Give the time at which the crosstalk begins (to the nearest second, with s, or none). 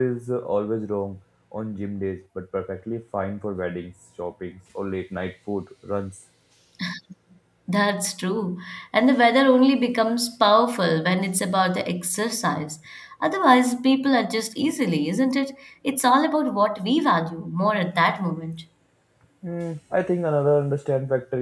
none